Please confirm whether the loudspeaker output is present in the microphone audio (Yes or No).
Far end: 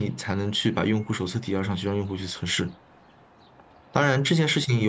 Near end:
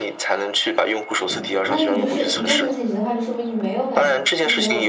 Yes